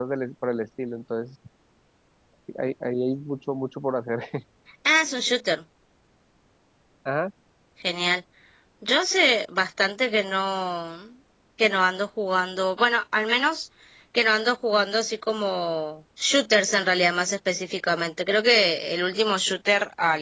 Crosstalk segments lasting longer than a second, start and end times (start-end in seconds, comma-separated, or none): none